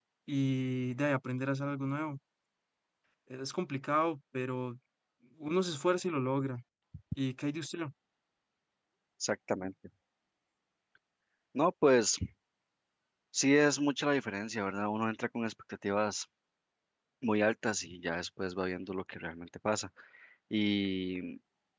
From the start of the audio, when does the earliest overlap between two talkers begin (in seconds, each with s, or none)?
none